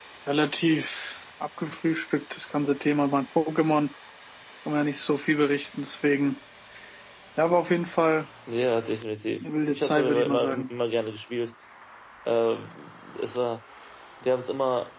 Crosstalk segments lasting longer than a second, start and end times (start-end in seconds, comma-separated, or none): 9.4-10.6